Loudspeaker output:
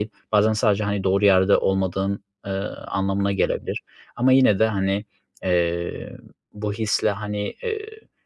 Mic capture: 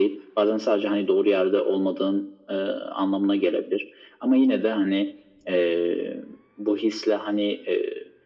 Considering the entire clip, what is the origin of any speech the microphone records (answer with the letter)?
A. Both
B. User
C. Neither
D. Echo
D